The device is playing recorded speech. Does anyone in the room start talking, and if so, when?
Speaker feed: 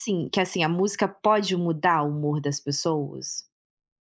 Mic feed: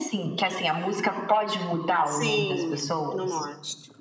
2.0 s

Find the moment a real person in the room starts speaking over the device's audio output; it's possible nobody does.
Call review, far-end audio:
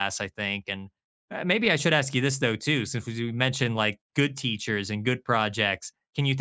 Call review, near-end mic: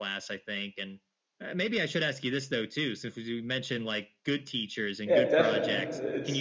5.0 s

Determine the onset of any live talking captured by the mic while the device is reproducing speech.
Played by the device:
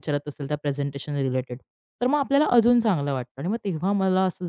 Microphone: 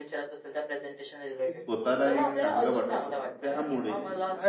1.4 s

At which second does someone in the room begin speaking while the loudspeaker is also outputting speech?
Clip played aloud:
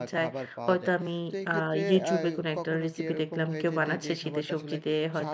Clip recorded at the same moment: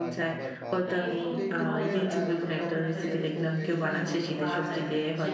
0.8 s

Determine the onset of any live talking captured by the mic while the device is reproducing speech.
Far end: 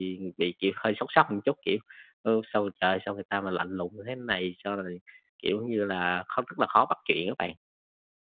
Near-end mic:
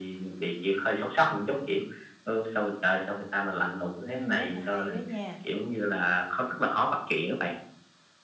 4.0 s

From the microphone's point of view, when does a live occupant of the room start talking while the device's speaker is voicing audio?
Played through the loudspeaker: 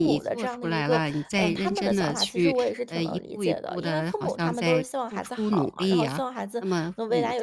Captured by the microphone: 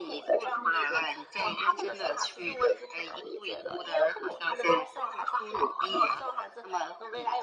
none

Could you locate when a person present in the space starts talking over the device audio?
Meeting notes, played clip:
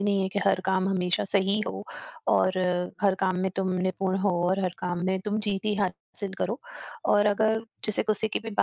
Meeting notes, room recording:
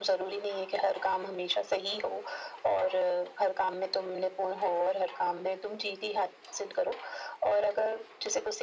none

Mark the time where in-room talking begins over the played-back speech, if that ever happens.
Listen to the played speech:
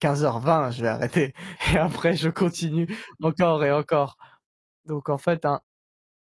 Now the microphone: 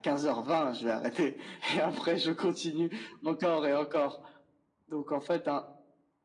none

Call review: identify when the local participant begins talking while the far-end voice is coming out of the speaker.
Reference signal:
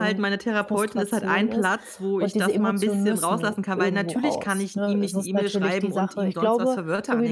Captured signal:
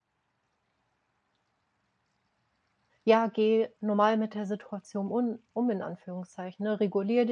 3.0 s

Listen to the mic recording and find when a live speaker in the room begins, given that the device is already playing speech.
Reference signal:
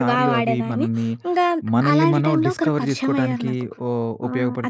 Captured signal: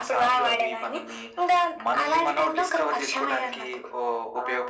none

